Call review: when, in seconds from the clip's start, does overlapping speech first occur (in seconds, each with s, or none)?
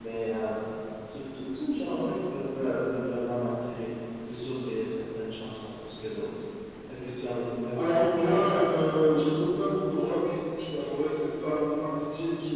7.8 s